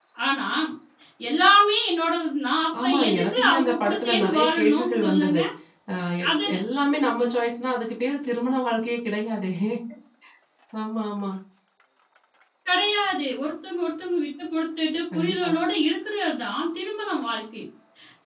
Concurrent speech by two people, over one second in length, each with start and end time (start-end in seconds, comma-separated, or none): 2.8-5.4